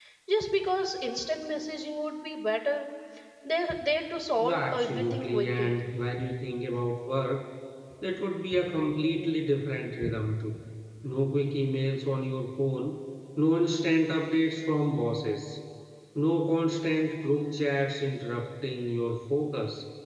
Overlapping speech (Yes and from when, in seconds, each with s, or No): Yes, from 4.4 s